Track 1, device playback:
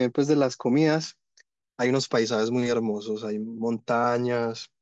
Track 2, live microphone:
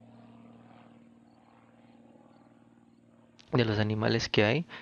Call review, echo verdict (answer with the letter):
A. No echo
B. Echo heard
A